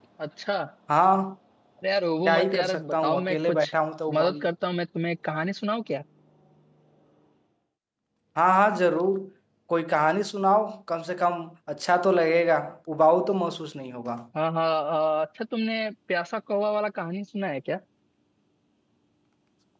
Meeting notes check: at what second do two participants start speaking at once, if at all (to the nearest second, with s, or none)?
2 s